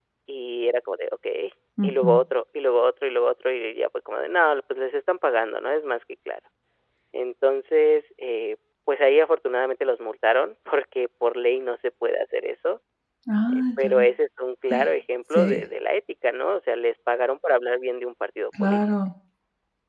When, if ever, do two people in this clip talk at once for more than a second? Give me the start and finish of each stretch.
none

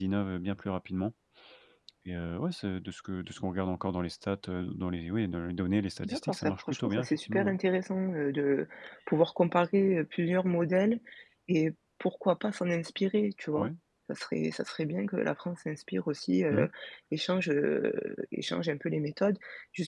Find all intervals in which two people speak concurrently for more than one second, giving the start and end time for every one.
6.0-7.5

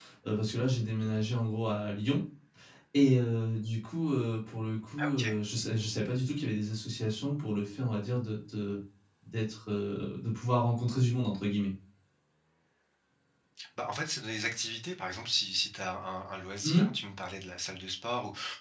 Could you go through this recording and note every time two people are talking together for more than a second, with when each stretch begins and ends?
none

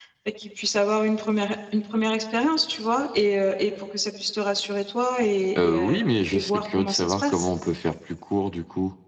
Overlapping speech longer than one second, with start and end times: 5.6-7.5

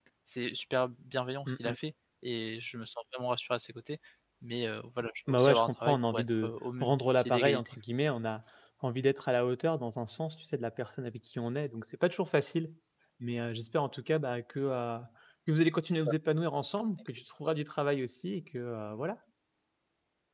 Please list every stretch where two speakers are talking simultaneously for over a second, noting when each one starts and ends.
5.3-7.8

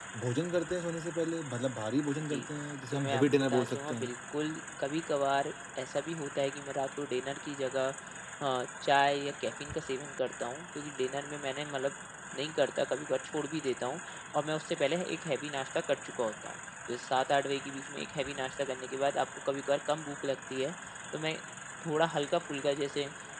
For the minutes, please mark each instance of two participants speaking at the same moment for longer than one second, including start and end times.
2.9-4.1

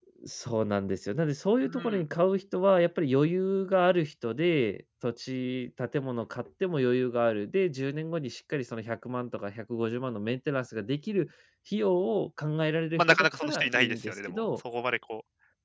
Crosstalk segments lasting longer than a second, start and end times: 13.0-14.6

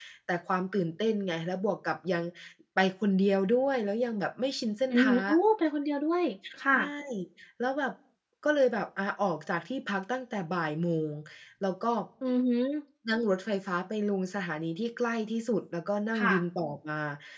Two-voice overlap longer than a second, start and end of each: none

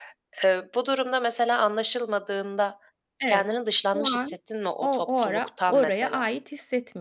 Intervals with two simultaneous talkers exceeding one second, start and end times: 4.8-6.2

